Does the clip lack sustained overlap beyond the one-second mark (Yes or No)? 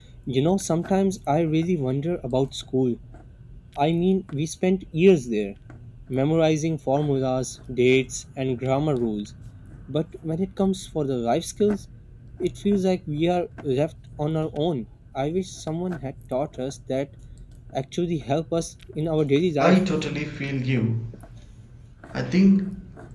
Yes